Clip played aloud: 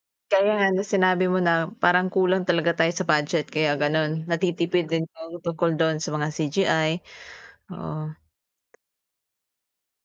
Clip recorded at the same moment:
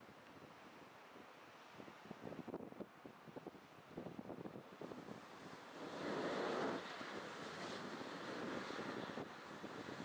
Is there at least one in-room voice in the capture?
No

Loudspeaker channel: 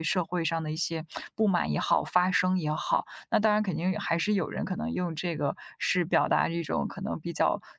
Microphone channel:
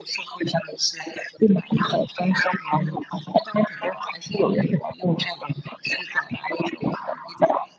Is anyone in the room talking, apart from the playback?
No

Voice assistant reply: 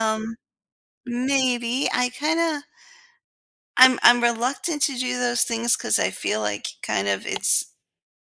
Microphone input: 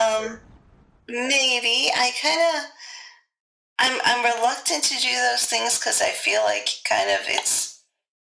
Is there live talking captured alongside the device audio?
No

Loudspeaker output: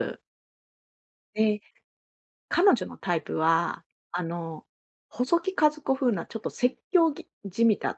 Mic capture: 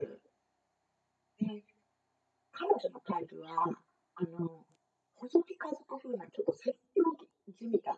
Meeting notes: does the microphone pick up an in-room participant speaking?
No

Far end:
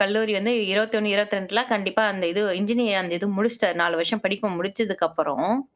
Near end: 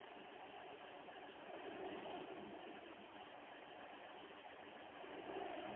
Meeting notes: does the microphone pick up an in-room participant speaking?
No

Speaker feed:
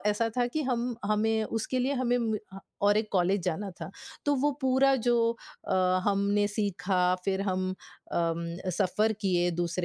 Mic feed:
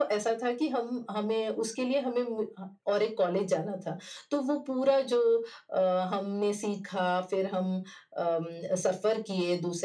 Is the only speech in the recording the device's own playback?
Yes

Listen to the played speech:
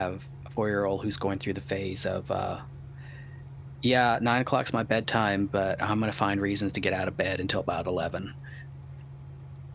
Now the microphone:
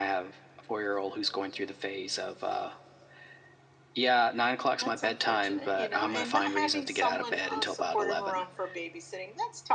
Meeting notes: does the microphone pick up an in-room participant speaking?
Yes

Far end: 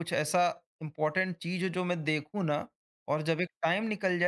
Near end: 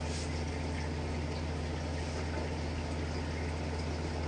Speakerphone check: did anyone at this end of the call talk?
No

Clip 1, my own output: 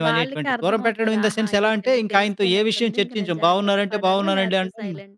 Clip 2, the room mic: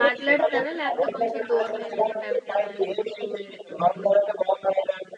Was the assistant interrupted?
Yes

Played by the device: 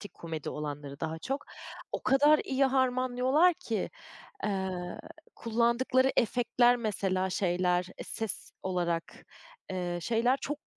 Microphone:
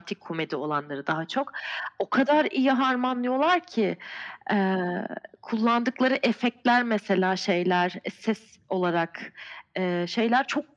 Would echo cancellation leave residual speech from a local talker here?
No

